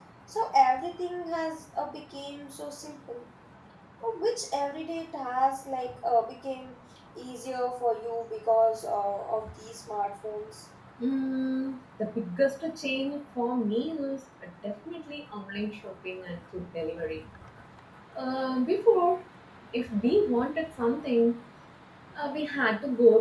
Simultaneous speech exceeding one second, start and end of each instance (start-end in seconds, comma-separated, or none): none